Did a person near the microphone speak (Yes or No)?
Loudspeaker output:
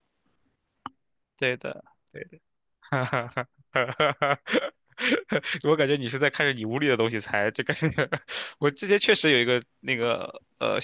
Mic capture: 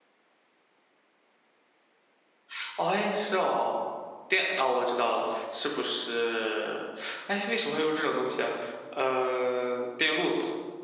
Yes